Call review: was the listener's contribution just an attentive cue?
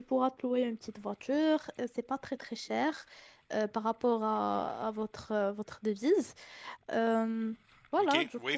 No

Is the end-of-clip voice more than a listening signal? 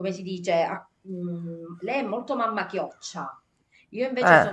No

